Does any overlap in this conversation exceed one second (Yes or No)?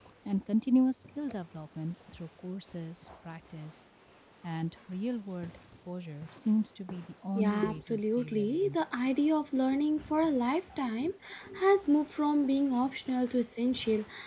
Yes